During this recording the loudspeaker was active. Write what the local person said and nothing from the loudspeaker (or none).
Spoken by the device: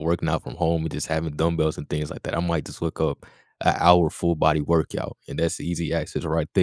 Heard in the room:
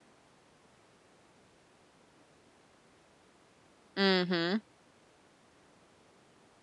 Mm-hmm.